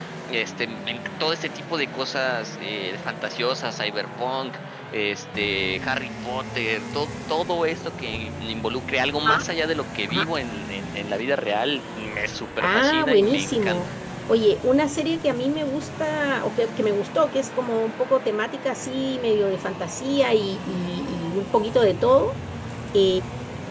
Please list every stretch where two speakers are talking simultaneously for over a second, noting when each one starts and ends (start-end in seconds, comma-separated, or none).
12.6-13.9